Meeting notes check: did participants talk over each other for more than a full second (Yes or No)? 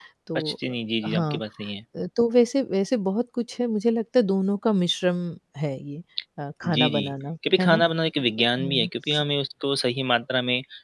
No